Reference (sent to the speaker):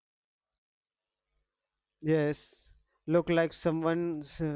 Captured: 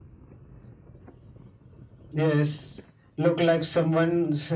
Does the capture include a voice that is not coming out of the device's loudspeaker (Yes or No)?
No